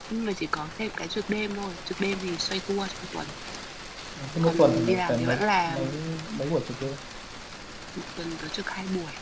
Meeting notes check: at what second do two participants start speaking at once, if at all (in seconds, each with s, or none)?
4.4 s